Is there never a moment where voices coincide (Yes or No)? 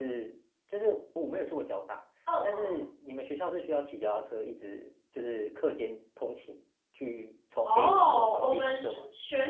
No